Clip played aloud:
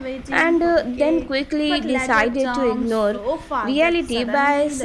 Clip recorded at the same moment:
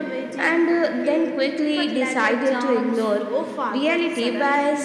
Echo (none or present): present